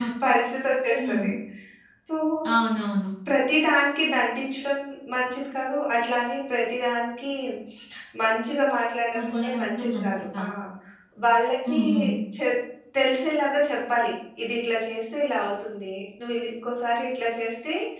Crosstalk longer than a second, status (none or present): present